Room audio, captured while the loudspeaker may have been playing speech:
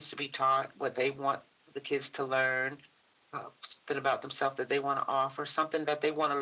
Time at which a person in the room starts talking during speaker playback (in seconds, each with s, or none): none